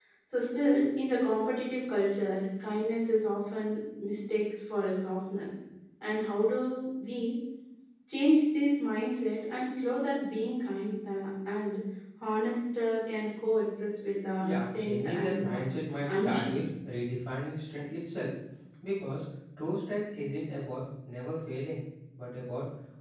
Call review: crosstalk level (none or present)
present